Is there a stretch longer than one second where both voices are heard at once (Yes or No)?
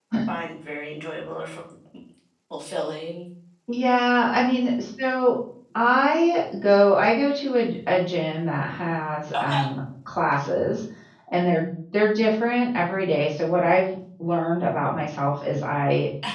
No